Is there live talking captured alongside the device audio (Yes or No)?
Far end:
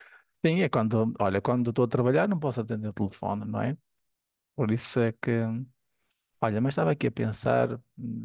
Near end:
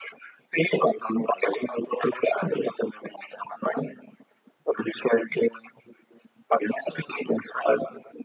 No